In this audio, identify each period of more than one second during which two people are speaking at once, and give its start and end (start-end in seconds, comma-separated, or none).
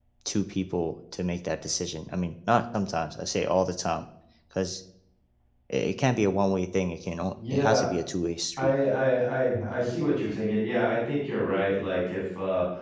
none